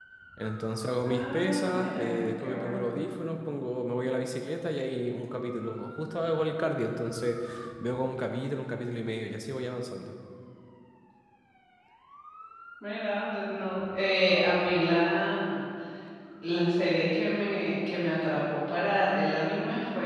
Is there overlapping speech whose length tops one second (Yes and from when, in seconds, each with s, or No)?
Yes, from 1.0 s